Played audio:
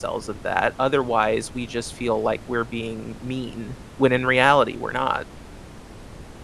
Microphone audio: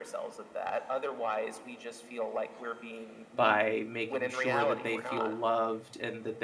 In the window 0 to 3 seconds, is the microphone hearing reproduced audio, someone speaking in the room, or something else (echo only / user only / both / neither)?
echo only